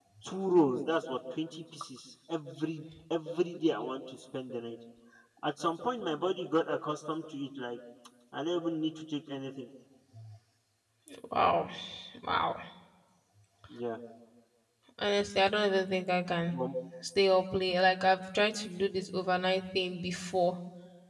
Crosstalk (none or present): none